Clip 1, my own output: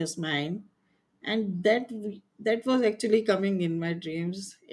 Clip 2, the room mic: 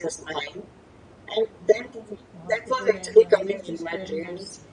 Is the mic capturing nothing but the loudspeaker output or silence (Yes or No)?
No